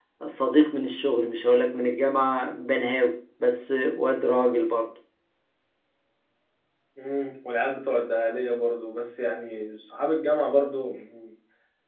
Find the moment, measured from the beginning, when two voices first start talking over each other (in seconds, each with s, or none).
none